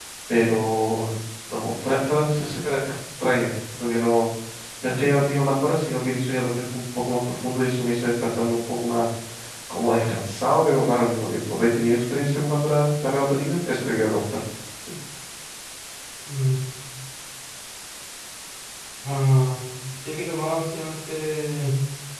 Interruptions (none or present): none